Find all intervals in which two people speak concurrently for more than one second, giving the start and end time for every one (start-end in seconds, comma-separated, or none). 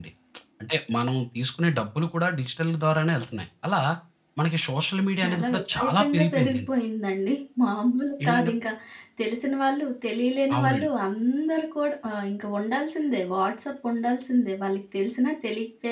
5.2-6.7